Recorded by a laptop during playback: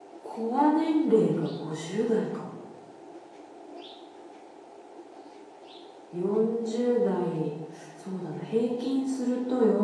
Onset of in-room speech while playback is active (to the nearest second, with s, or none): none